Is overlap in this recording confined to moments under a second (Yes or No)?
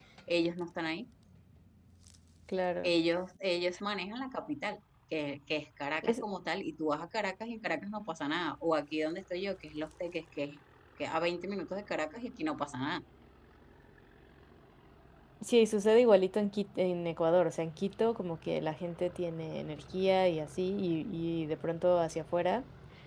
Yes